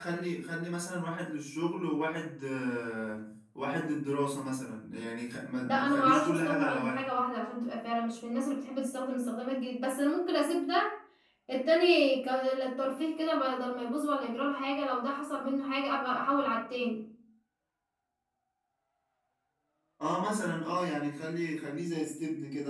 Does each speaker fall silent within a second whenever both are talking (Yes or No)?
No